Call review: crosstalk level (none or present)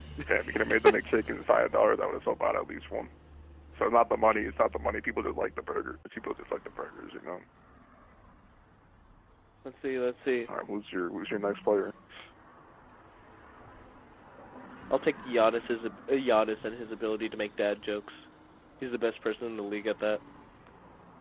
none